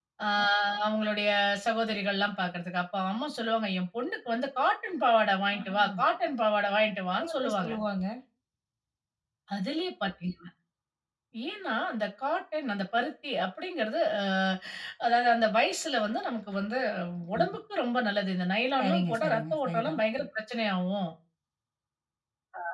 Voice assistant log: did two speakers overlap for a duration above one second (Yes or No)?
Yes